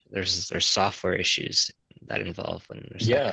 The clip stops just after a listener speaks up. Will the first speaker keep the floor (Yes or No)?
No